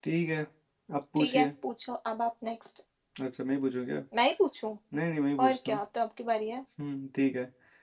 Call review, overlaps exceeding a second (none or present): none